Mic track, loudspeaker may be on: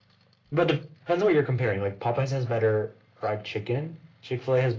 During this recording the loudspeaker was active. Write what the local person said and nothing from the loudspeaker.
none

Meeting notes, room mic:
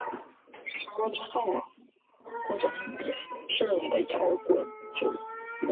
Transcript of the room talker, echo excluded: 嗯

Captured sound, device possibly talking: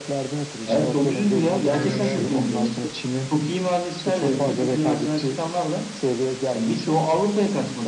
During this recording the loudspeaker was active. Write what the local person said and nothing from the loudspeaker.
Aynen öyle.

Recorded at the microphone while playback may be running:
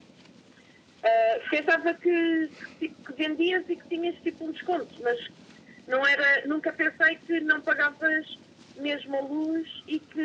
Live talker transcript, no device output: none

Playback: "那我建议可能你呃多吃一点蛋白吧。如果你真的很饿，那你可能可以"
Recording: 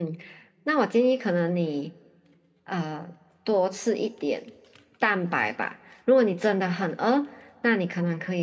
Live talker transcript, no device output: none

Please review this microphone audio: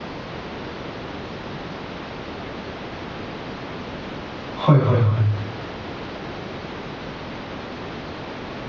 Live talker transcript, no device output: はいはいはい。

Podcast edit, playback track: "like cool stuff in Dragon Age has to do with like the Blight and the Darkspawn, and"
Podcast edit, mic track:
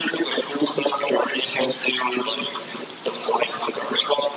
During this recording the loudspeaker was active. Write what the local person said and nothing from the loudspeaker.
none

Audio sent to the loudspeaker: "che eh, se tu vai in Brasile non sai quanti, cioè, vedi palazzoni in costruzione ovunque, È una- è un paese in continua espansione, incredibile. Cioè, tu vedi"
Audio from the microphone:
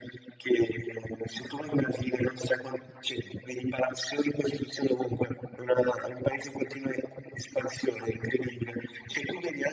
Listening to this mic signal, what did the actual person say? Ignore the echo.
none

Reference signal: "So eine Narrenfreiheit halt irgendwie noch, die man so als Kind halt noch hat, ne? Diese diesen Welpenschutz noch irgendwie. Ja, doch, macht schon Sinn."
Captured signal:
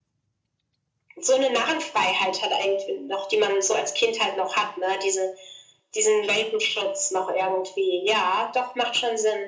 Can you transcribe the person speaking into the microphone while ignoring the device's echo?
none

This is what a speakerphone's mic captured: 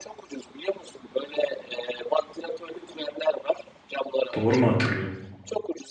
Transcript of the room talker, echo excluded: Doğru mu hatırlıyorum?

